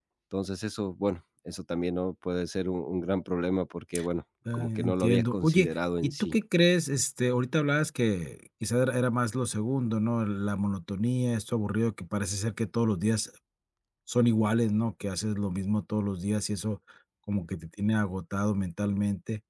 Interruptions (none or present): present